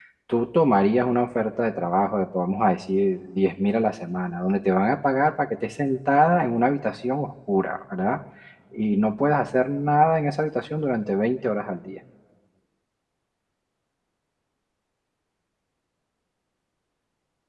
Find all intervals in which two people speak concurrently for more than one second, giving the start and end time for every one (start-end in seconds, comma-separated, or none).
none